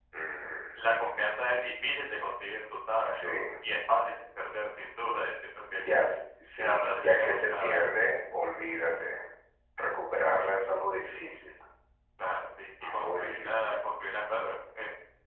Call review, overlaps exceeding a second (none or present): present